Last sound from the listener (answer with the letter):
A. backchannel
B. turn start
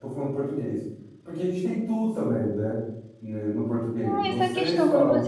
B